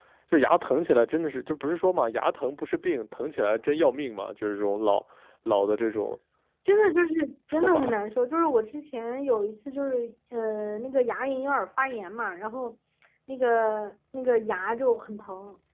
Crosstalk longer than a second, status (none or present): none